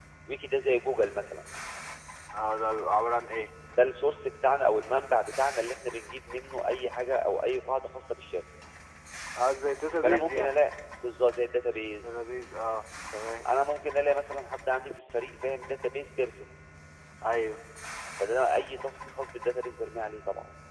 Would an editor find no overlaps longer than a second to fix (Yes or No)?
Yes